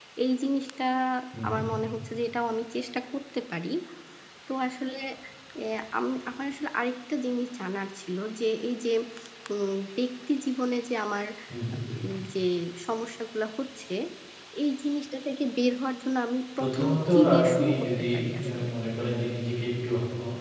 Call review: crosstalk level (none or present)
present